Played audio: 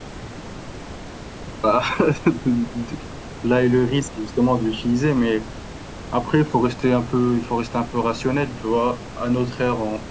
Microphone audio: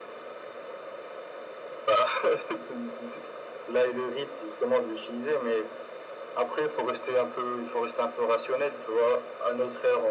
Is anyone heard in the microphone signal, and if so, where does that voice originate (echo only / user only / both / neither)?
echo only